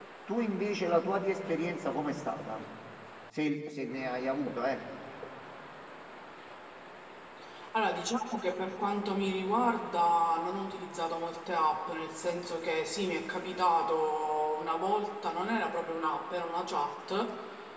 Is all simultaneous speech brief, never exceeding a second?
Yes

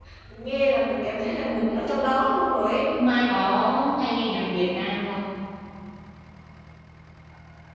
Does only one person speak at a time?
Yes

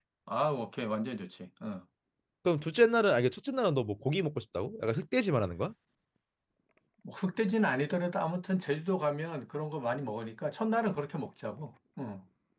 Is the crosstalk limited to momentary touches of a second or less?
Yes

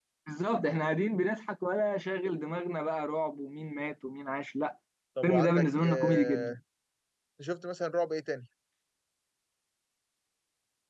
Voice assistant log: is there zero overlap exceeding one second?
No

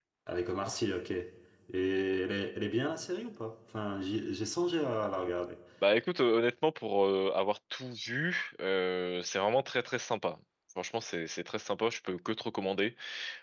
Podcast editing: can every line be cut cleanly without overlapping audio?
Yes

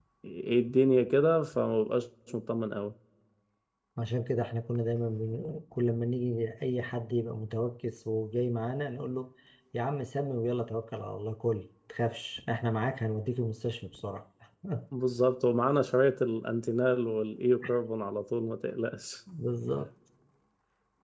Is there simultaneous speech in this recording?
No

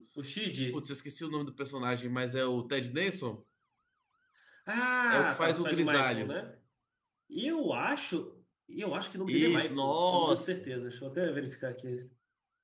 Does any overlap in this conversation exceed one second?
Yes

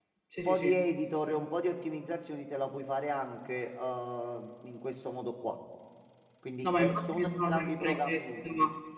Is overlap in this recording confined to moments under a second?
No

